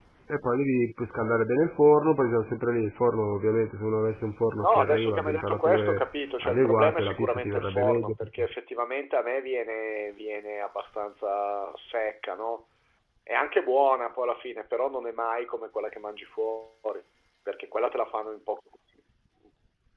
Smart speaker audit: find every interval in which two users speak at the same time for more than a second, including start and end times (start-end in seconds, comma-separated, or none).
4.6-6.0, 6.4-8.5